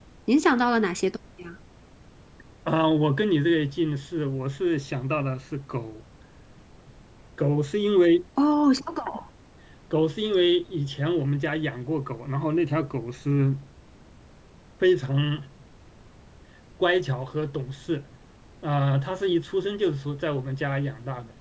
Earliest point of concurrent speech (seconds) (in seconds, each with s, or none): none